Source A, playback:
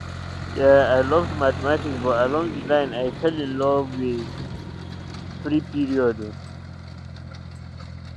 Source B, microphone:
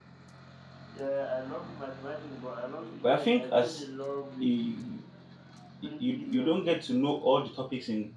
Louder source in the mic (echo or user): user